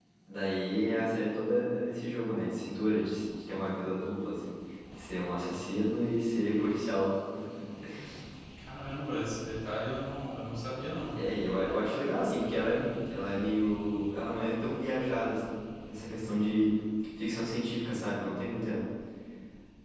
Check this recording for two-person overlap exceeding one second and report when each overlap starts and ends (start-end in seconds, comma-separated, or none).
none